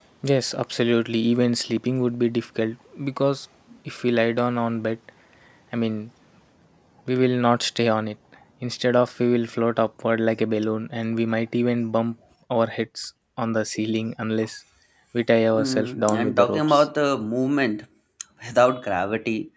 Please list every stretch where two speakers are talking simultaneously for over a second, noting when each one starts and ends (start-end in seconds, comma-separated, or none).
15.6-16.9